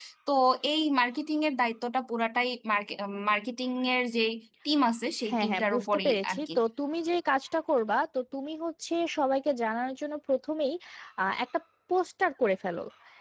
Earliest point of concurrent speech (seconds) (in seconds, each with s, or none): 5.3 s